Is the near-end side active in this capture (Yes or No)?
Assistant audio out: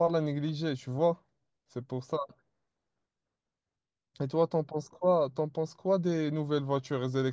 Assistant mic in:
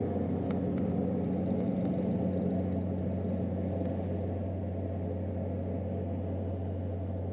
No